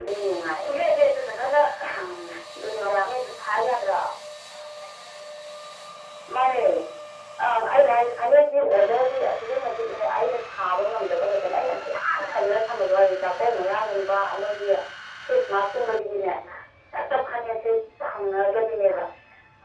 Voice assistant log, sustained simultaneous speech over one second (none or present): none